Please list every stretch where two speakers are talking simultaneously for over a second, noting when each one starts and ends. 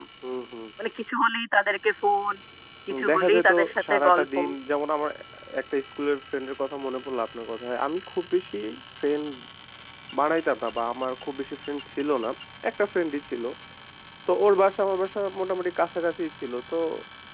2.9-4.3

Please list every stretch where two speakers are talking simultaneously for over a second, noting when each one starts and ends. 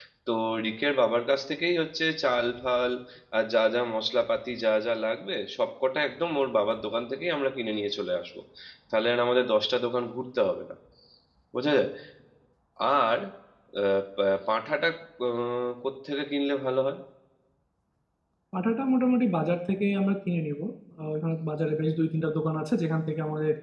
none

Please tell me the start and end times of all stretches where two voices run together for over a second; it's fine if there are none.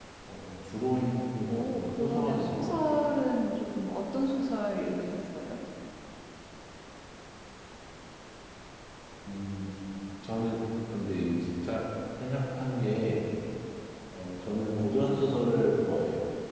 1.5-3.1

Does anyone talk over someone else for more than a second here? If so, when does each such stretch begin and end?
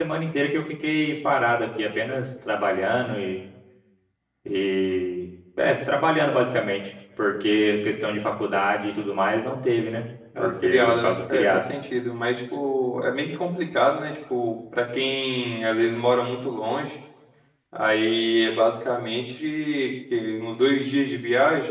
10.4-11.7

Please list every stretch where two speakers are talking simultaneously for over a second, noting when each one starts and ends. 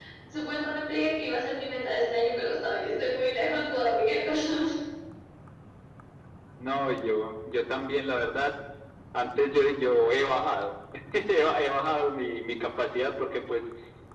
none

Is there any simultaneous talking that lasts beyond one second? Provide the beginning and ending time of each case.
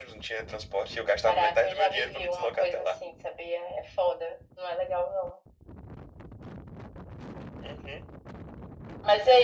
1.2-2.9

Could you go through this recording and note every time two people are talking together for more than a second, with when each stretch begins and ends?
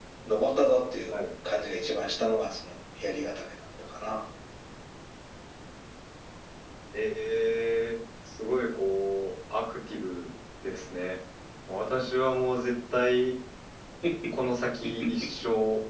none

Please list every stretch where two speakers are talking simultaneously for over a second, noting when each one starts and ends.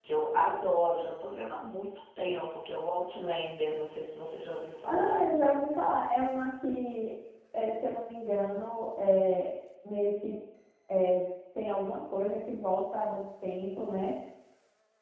none

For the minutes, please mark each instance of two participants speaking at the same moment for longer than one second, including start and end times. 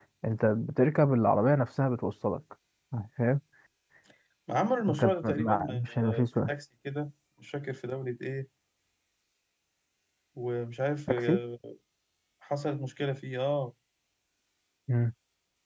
4.9-6.5

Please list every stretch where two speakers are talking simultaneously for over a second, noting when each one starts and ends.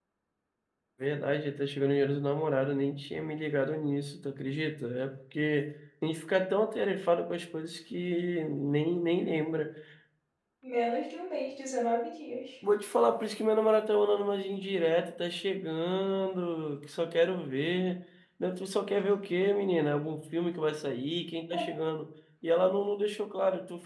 none

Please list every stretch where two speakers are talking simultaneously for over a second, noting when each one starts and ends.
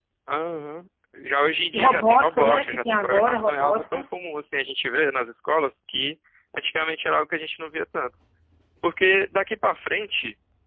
1.7-4.0

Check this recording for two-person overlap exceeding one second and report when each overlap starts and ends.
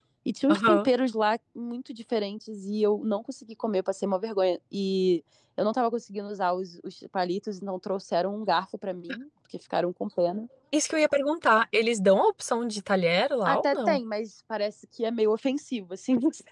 none

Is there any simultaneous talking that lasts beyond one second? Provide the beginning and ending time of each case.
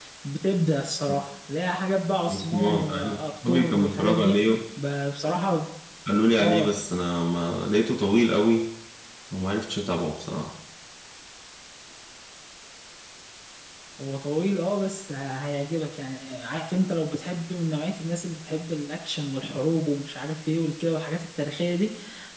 2.3-4.4

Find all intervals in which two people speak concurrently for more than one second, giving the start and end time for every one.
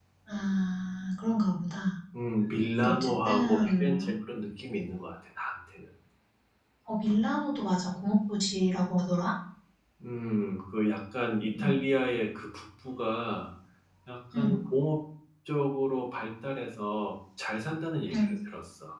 2.8-4.2

